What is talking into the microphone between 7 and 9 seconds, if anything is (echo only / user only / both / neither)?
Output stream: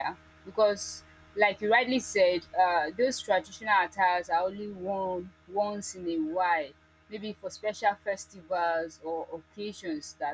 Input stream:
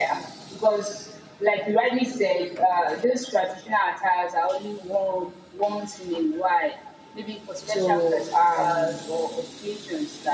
both